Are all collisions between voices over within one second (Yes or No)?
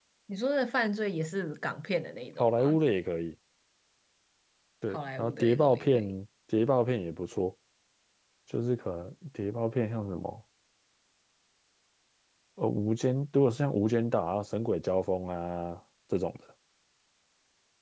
No